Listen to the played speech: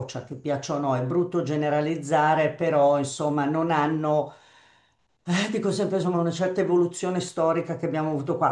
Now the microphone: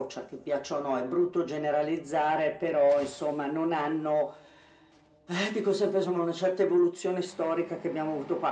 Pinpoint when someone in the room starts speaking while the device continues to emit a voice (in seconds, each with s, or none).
none